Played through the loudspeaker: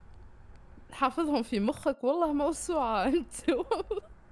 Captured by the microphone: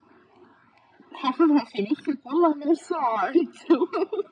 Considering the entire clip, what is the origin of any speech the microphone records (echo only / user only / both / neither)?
echo only